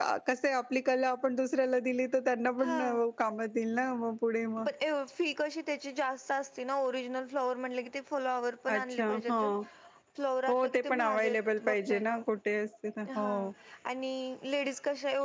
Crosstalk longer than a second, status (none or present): present